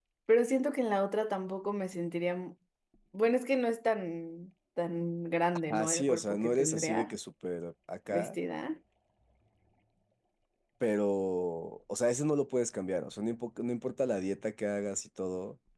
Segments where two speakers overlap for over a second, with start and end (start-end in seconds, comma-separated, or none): 5.7-7.2